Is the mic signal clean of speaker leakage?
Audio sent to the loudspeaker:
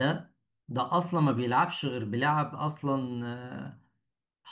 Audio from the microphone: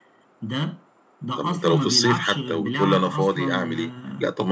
No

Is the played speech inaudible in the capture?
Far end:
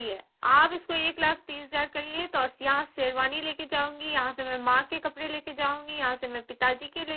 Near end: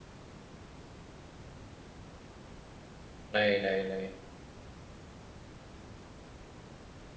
Yes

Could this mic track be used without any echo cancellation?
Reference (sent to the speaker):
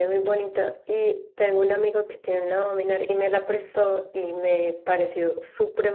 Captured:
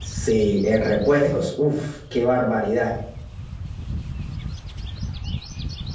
Yes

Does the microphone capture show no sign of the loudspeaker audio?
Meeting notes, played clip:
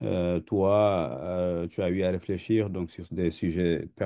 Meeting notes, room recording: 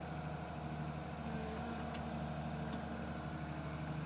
Yes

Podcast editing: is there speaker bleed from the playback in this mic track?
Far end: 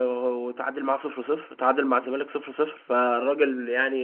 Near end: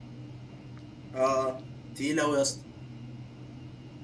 No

